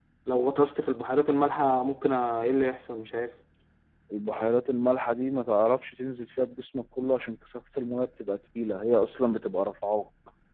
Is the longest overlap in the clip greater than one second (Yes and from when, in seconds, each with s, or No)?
No